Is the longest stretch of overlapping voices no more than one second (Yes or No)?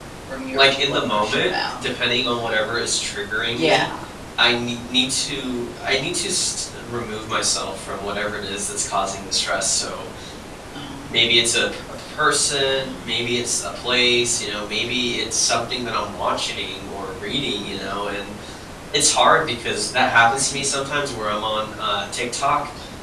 No